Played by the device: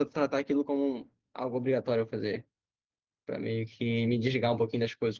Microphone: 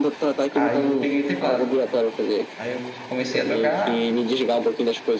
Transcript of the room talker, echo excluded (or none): Aí eu peguei o teclado. Aí eu comecei a tocar,